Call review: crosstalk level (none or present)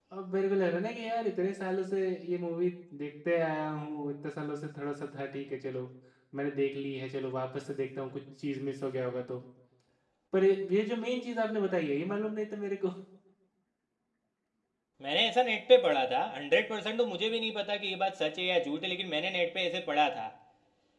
none